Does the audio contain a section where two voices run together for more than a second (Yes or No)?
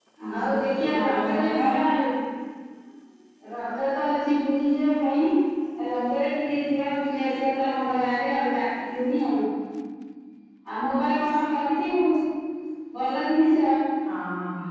Yes